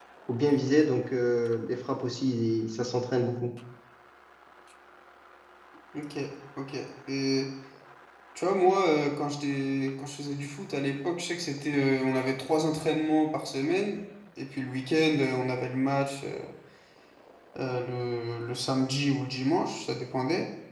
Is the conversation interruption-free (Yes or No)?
Yes